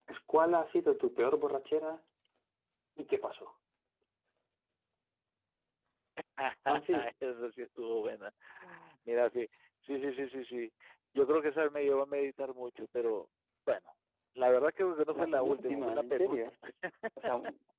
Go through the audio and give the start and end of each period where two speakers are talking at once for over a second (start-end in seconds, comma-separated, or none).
15.2-16.4